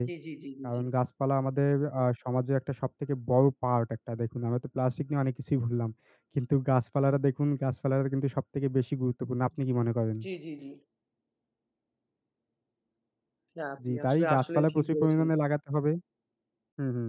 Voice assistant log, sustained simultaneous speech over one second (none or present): present